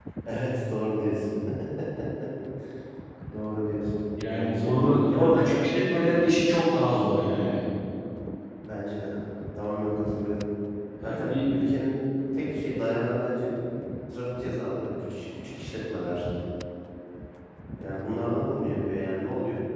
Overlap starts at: 4 s

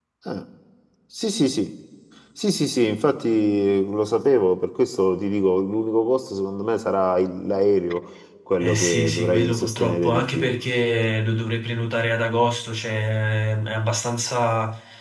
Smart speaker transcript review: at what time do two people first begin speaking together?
9 s

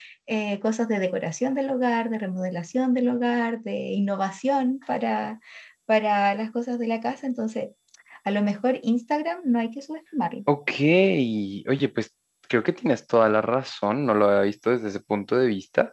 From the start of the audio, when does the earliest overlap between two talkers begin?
none

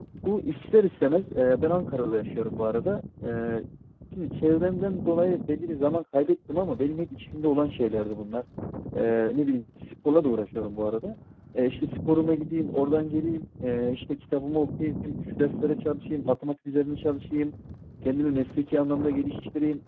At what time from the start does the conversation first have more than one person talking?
none

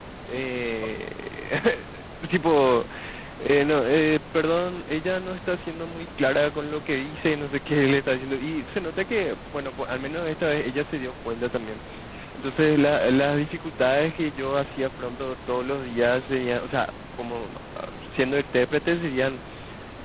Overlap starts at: none

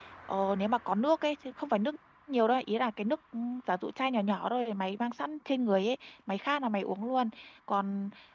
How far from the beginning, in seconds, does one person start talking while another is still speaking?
none

